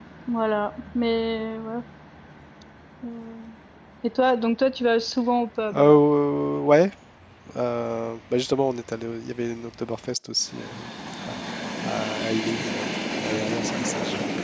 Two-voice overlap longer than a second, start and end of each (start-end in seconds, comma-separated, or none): none